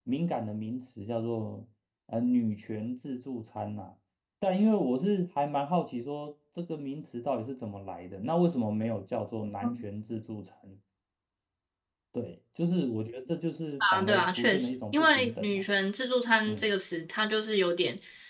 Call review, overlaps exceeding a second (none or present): present